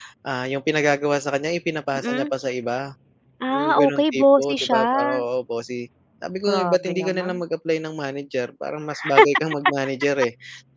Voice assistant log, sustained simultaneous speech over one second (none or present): present